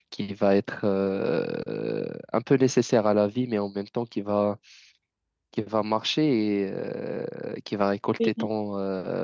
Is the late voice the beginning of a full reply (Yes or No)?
No